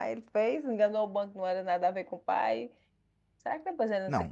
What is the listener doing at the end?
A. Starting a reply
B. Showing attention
A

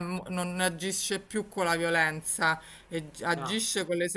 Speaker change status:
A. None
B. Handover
A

